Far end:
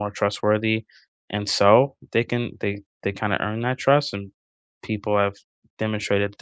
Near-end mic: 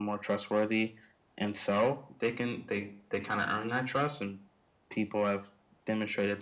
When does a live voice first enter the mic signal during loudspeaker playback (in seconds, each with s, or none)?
none